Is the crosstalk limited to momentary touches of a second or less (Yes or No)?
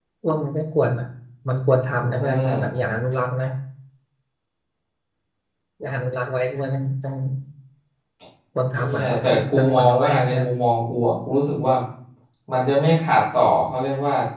No